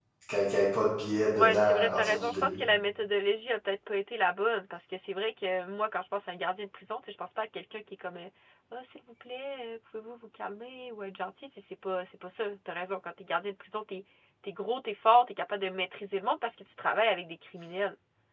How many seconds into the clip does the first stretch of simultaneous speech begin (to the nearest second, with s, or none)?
1 s